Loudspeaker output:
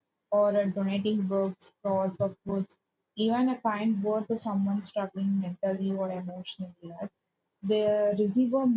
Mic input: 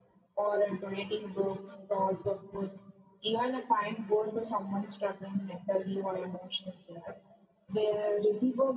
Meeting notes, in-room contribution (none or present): none